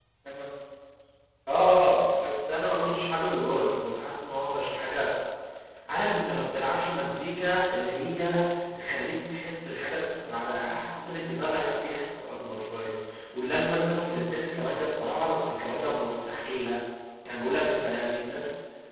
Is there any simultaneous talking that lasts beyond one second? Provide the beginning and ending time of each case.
none

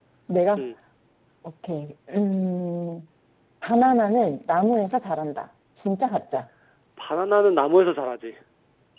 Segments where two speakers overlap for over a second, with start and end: none

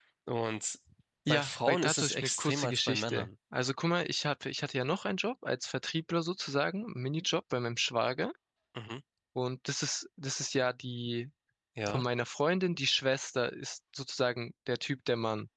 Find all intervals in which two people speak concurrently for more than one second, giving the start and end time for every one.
1.3-3.3

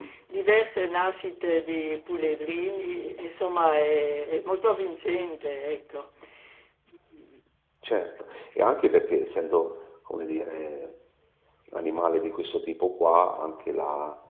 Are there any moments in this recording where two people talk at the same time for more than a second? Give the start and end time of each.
none

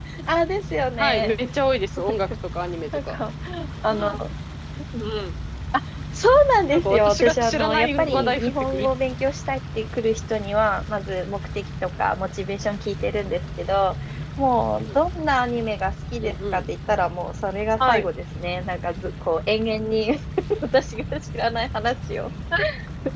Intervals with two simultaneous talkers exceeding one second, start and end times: 6.7-8.9

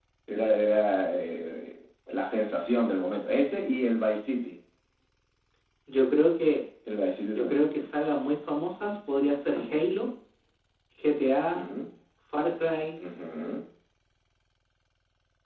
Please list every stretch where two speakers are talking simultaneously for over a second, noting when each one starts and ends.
none

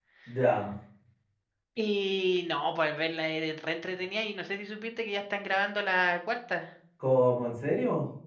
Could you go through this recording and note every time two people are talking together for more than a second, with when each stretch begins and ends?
none

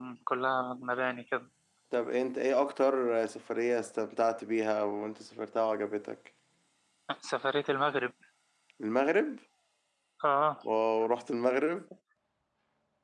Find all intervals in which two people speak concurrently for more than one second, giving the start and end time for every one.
none

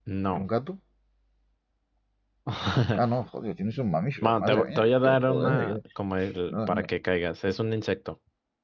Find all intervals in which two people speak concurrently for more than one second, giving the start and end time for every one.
4.2-5.8

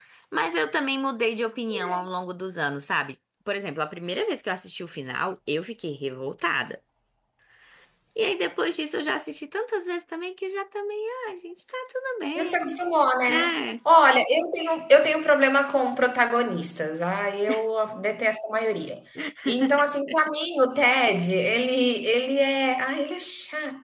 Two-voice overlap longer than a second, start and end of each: none

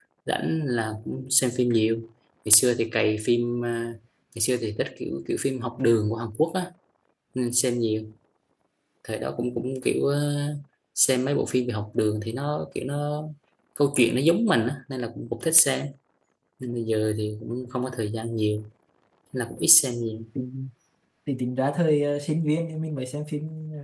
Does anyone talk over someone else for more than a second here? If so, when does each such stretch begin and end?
none

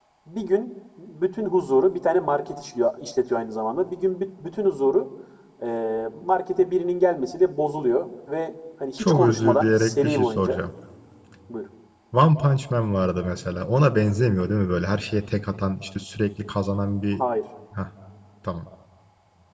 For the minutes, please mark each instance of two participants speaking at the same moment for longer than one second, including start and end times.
9.0-10.6

